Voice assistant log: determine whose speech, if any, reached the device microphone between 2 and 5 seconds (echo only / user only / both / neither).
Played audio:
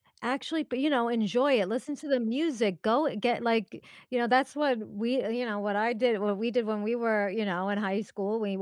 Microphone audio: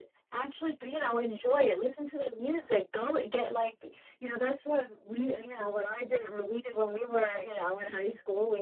echo only